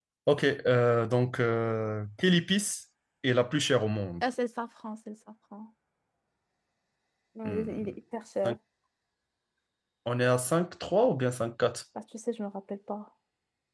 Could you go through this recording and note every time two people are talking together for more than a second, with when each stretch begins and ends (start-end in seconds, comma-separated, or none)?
none